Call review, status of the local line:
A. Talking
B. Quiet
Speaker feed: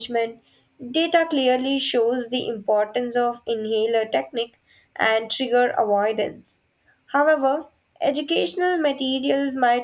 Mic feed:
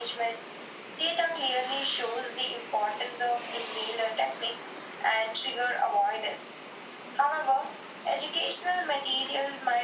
B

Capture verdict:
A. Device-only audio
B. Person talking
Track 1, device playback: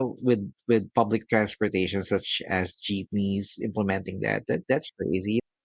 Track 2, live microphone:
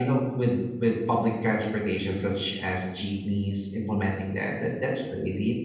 A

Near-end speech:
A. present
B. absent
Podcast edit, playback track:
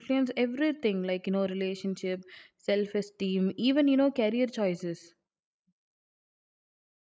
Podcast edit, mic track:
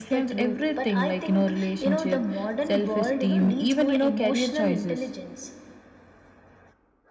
A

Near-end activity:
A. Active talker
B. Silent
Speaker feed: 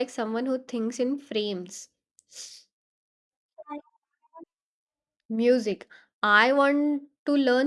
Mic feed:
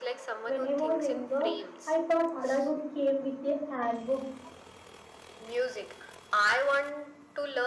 A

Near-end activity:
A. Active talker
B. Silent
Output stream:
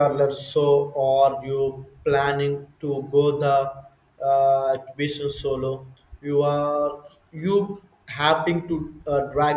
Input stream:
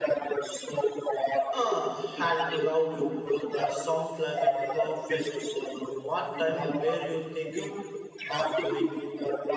A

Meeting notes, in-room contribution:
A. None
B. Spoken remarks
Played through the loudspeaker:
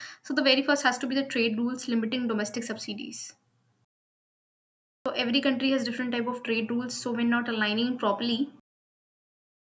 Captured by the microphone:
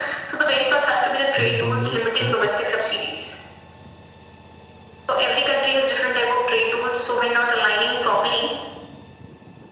B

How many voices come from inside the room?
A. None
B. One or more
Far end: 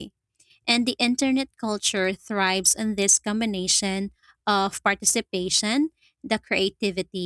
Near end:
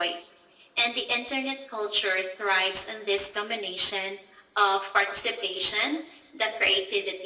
A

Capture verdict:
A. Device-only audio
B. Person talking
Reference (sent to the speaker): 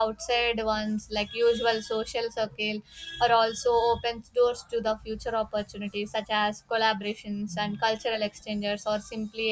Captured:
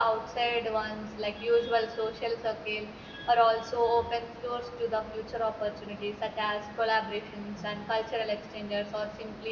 A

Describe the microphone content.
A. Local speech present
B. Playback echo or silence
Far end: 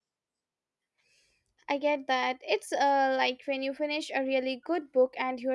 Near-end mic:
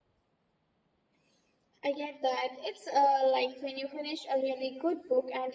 B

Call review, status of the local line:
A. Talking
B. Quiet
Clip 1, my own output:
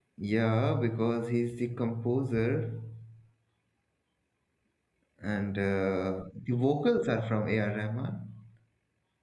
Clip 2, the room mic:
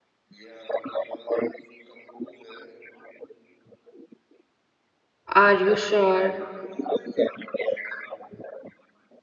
A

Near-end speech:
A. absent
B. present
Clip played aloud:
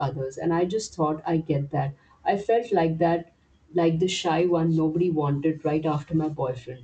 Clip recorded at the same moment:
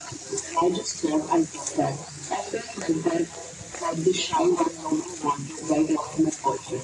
A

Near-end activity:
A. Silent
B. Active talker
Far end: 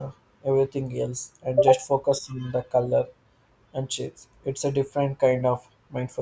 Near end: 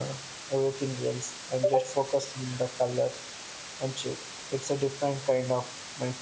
A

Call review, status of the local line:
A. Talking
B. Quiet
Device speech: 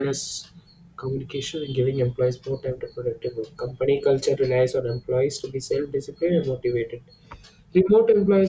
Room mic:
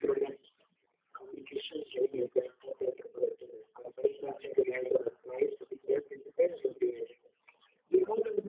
B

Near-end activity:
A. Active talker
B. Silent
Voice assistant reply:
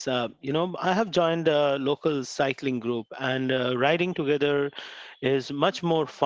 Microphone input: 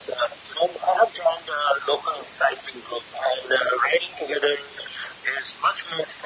B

